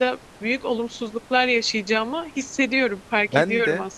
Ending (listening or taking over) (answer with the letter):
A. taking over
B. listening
A